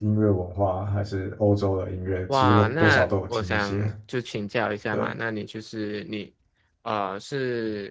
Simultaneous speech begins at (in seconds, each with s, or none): 2.3 s